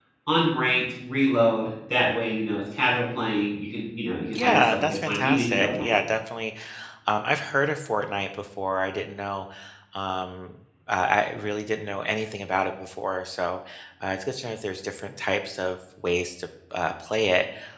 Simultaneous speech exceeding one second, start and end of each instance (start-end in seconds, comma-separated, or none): 4.3-5.9